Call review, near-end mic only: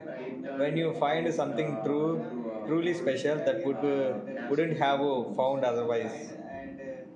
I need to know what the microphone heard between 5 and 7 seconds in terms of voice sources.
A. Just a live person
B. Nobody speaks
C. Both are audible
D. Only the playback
C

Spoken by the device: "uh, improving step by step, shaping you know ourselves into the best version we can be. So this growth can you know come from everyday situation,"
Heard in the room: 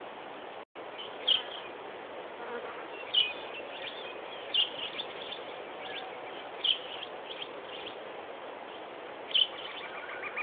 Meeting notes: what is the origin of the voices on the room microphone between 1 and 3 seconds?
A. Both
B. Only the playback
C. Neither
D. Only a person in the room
C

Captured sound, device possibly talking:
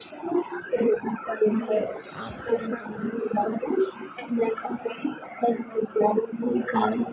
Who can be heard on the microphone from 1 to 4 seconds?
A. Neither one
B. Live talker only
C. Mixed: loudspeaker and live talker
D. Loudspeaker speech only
C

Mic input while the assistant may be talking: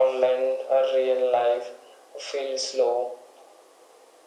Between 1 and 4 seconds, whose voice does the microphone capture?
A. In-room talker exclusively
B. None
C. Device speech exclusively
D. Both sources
C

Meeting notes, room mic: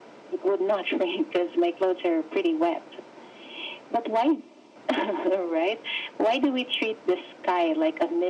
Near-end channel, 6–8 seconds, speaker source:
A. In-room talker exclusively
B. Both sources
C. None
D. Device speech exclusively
D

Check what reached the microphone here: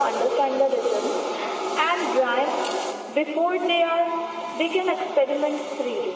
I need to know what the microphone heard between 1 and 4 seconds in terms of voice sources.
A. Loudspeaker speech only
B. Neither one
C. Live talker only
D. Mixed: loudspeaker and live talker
A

